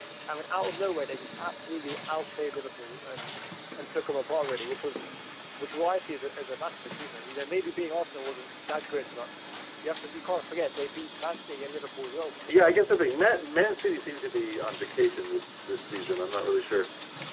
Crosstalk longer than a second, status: none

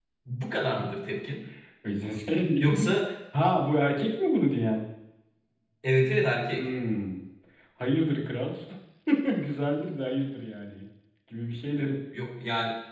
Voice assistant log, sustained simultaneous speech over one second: none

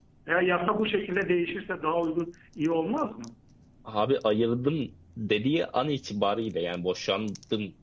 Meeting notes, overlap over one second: none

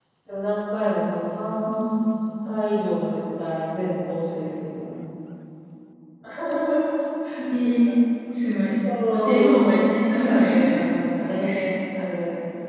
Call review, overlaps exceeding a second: present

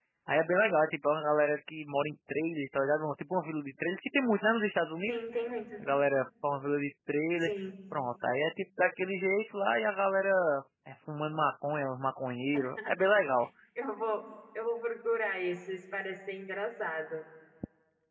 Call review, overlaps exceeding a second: none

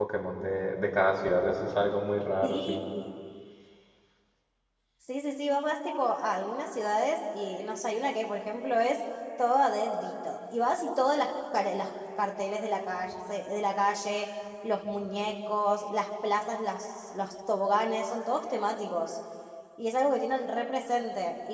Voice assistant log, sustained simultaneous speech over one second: none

